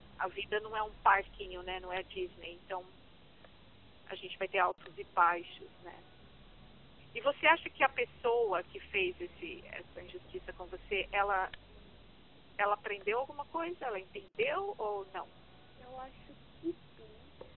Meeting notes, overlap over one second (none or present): none